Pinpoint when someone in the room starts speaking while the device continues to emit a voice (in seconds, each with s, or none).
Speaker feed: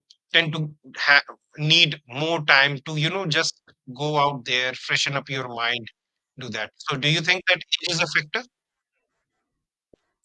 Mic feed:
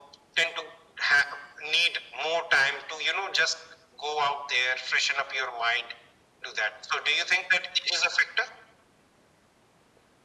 none